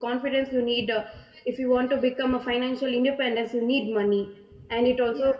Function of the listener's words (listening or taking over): listening